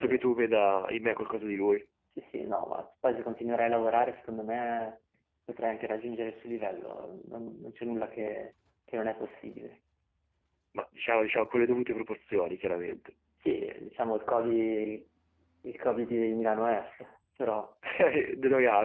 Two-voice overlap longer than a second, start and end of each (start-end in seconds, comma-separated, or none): none